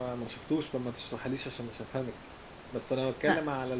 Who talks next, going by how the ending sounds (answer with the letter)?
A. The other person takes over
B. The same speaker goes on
B